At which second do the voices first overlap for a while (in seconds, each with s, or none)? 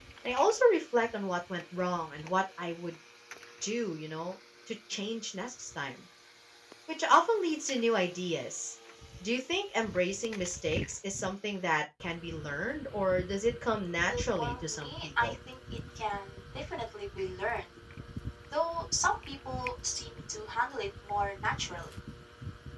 14.1 s